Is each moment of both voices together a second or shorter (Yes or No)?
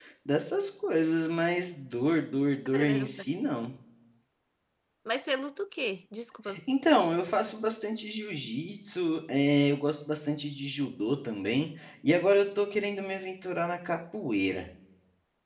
Yes